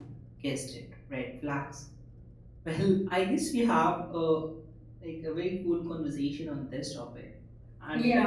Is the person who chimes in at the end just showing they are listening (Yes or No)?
No